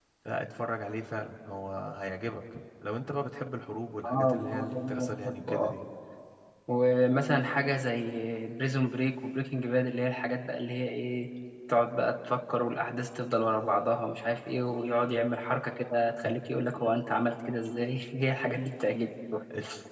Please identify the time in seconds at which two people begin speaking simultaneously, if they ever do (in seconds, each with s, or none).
4.0 s